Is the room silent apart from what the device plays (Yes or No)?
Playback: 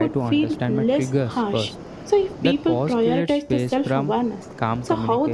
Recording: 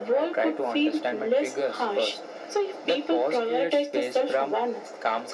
Yes